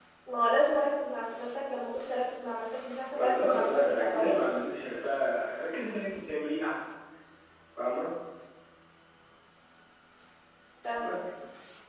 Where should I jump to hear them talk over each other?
3.1 s

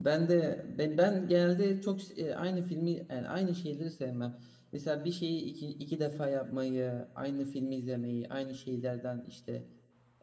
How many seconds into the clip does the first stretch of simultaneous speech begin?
none

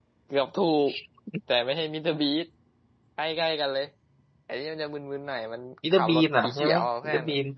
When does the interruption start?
5.8 s

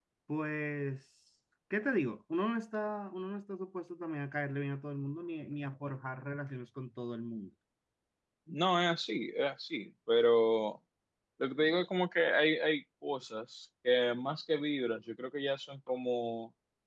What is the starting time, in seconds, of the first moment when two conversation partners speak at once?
none

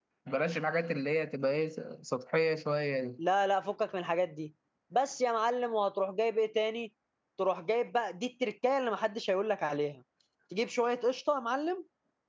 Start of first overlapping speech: none

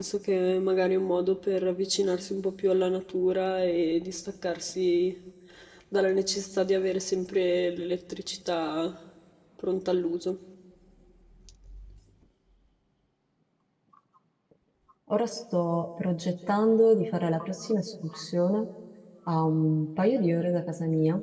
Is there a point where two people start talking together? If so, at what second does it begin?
none

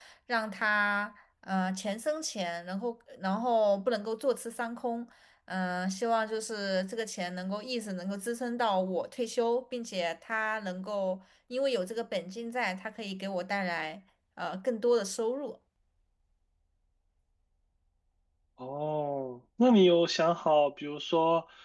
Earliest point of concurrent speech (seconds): none

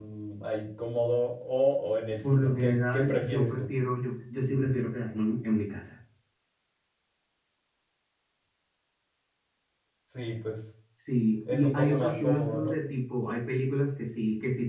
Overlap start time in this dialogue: 2.2 s

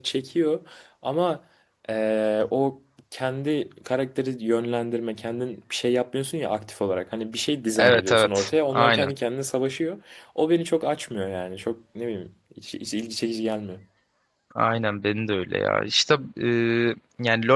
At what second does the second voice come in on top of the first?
7.8 s

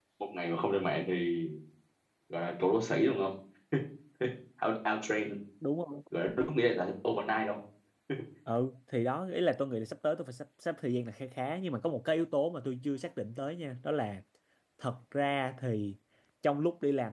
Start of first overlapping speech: none

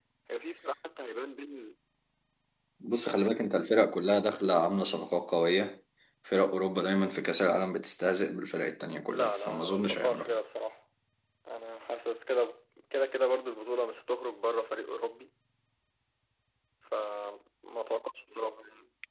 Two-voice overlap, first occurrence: 9.1 s

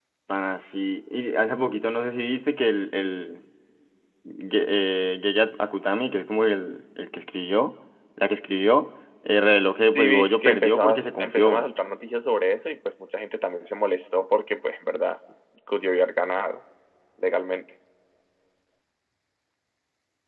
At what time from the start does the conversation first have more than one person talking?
9.9 s

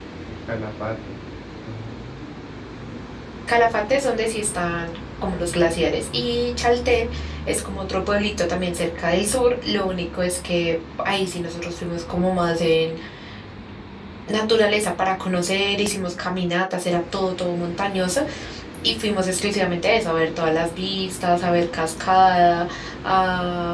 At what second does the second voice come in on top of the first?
none

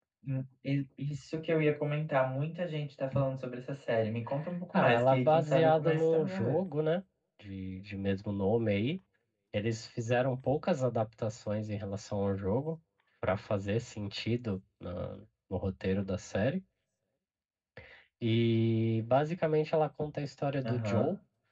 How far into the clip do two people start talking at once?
4.7 s

